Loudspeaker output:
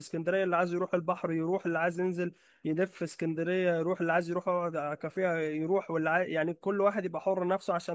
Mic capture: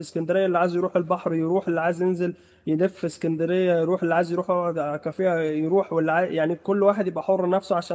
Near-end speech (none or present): none